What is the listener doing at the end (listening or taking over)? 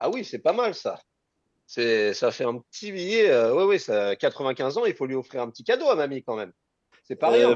taking over